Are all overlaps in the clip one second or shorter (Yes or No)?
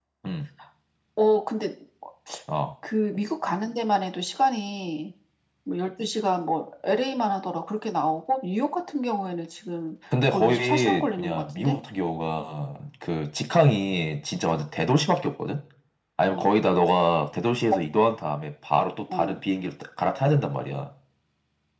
No